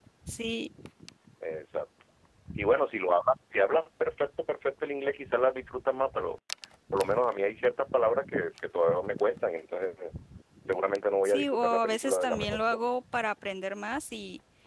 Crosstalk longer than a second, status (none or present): present